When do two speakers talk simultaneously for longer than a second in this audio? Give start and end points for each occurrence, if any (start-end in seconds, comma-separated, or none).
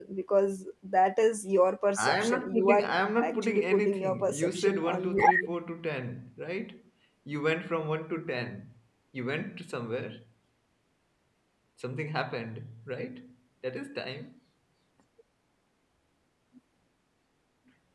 2.0-5.2